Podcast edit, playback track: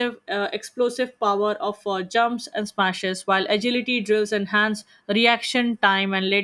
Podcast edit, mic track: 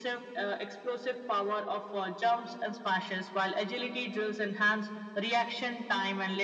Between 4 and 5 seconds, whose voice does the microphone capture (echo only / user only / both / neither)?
echo only